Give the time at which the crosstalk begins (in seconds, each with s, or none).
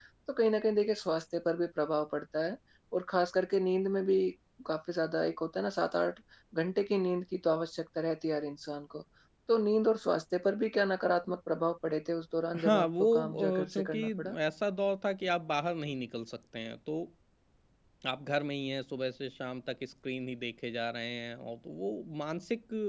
12.5 s